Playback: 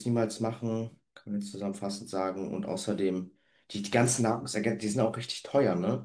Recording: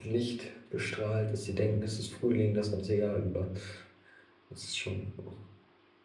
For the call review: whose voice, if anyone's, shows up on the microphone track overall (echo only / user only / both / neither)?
user only